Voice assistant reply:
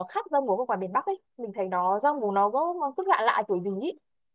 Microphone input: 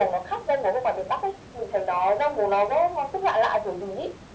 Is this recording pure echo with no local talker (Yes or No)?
Yes